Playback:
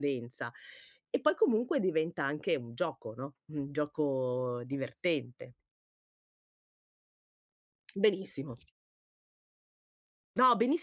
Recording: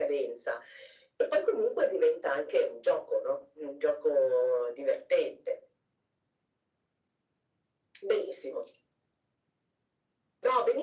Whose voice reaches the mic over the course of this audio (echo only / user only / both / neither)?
echo only